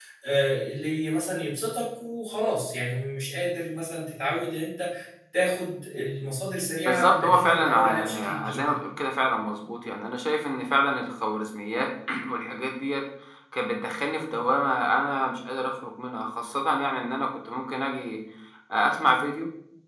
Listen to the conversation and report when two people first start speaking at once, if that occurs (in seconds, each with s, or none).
6.8 s